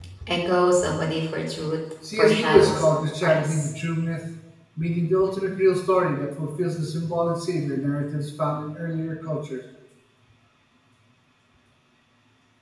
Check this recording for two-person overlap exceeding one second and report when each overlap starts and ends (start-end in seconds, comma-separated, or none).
2.2-3.7